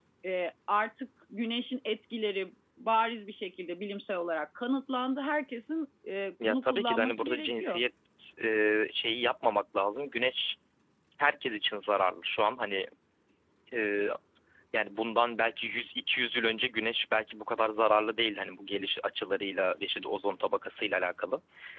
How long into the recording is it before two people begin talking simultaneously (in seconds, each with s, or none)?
6.4 s